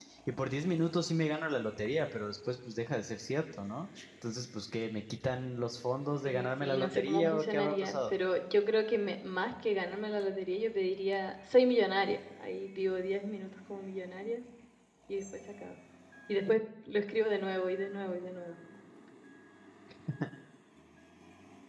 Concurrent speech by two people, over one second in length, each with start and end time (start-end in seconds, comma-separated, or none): 6.2-8.1